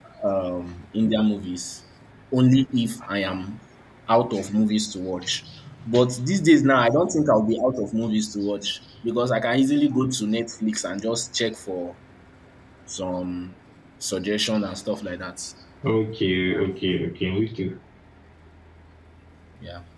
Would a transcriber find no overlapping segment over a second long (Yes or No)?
Yes